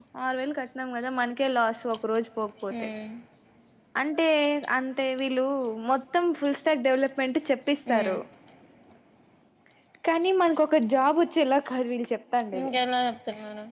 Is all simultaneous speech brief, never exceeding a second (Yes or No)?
Yes